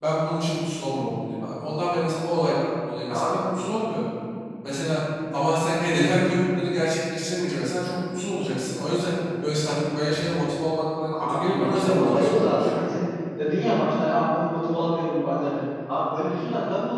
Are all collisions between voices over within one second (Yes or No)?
No